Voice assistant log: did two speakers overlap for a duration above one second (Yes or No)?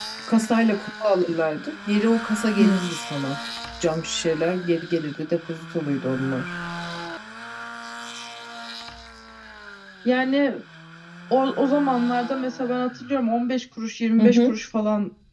No